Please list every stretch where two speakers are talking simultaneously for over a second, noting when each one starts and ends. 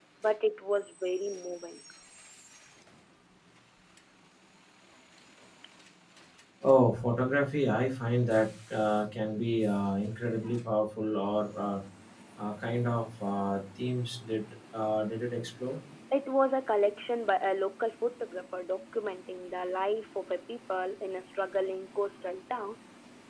none

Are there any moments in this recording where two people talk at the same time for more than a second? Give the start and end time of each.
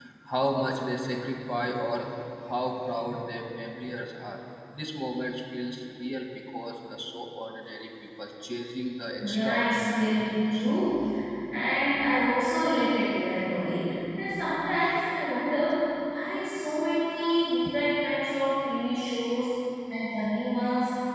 9.2-10.7

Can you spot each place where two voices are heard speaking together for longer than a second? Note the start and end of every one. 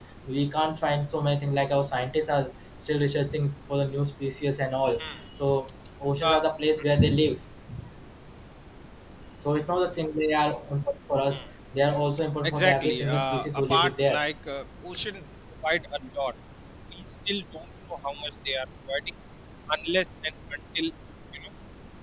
12.4-14.2

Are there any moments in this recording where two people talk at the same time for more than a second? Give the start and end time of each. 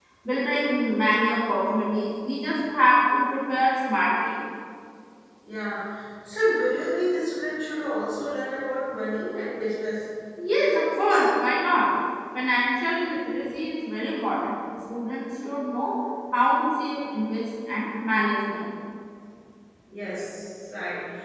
none

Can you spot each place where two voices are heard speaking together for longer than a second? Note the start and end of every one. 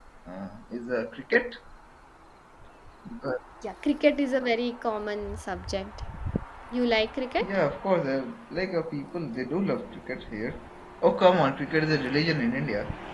none

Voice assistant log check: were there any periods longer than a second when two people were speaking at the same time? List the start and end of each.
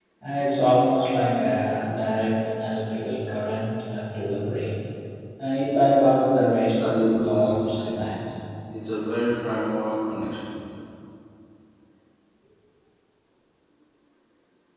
6.8-8.1

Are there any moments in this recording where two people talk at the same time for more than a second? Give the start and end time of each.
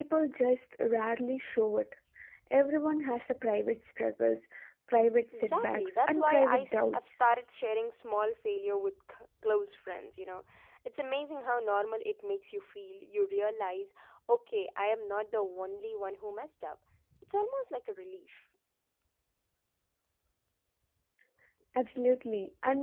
5.4-7.0

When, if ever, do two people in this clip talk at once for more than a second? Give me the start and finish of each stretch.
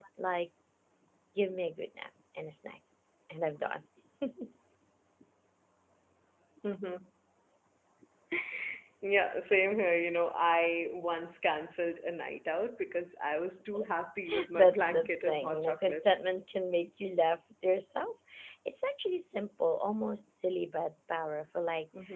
14.5-16.0

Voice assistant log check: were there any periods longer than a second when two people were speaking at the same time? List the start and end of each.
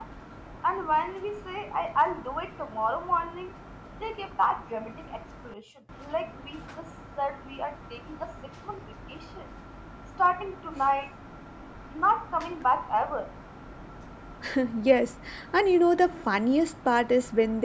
none

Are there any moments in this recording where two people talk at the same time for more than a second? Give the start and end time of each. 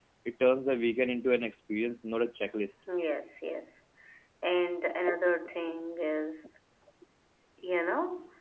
none

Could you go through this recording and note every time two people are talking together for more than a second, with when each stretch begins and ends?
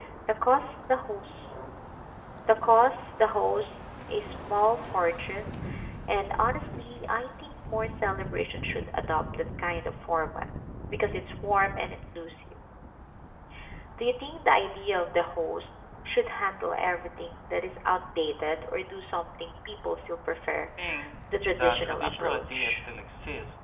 21.5-22.8

